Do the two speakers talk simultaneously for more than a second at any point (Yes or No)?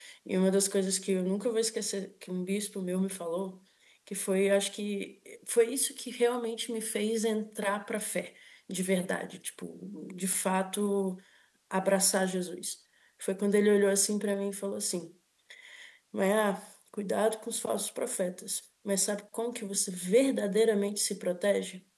No